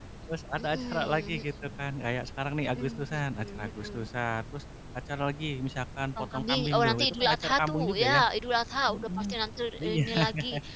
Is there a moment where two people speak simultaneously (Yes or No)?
Yes